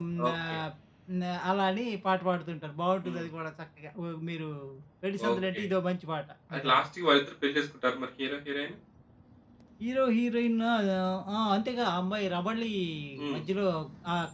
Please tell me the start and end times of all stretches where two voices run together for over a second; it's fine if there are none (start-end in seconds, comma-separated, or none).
none